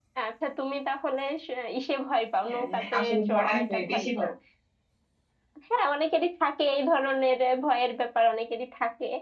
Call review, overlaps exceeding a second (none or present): present